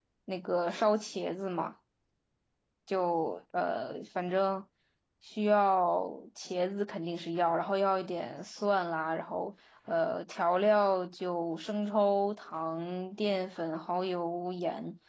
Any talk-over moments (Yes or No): No